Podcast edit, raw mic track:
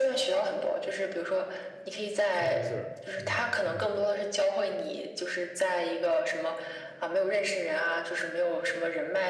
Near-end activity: present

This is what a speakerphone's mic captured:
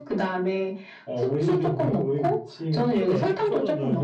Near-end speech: present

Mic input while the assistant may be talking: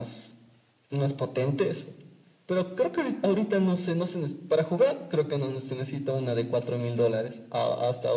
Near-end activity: none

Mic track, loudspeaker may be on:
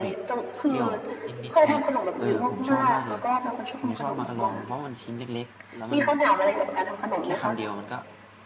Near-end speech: present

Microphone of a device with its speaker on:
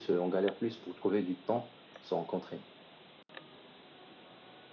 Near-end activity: none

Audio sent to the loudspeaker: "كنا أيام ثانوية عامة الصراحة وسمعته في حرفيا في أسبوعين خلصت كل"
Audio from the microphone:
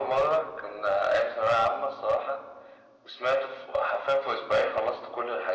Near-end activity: none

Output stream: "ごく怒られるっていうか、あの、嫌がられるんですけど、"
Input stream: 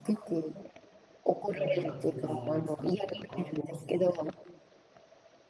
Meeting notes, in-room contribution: present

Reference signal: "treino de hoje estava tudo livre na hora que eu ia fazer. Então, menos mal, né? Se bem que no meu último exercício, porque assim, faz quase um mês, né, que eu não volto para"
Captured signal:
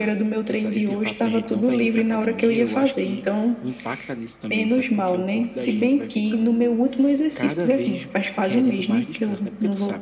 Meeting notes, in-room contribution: present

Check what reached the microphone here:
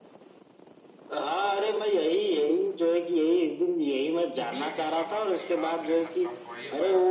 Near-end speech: present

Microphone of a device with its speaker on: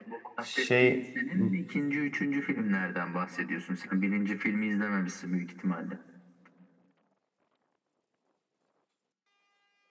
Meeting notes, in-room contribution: present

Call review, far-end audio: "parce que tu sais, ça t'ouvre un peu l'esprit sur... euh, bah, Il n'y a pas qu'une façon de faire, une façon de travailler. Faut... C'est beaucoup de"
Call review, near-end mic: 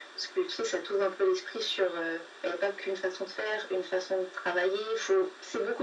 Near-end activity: none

